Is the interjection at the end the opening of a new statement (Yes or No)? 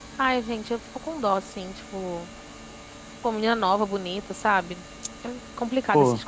No